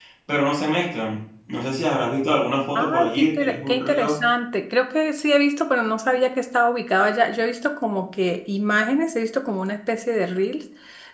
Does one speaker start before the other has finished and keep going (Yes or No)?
Yes